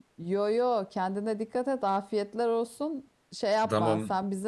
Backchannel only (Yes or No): Yes